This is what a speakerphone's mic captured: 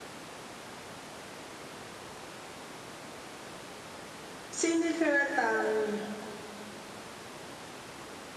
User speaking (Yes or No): Yes